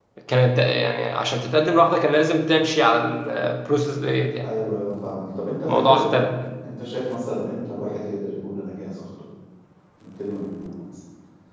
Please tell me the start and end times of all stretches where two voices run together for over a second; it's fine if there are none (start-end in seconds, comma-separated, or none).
none